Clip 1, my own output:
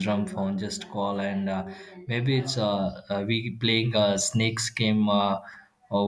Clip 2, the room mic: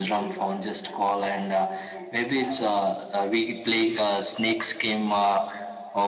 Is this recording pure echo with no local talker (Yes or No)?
Yes